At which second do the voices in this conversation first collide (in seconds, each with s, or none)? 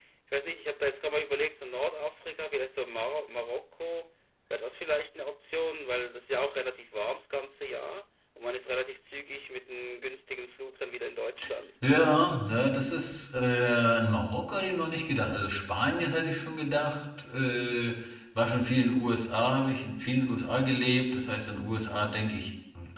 none